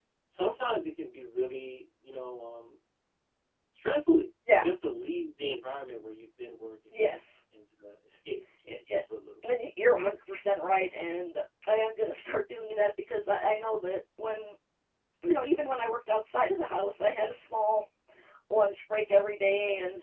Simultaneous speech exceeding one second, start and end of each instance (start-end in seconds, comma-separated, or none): none